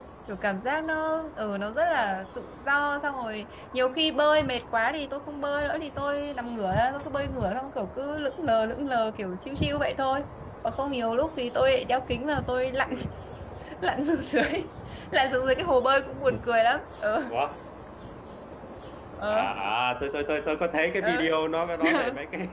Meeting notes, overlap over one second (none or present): none